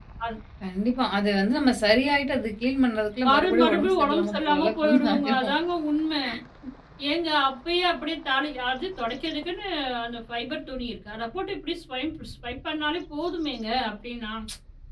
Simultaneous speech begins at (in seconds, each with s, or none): 3.2 s